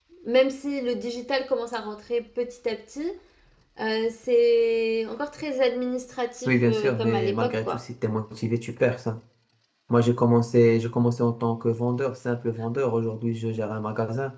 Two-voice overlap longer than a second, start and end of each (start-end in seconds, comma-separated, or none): 6.5-7.8